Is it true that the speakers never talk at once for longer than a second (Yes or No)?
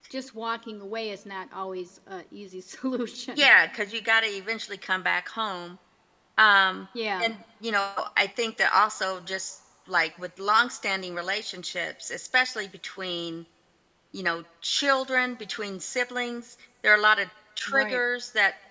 Yes